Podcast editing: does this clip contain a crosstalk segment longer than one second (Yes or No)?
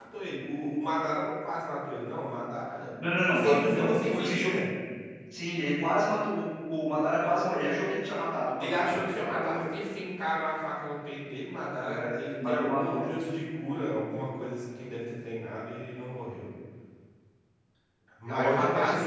Yes